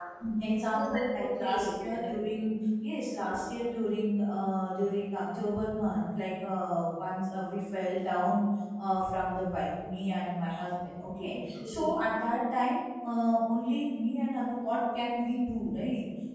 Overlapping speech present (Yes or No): Yes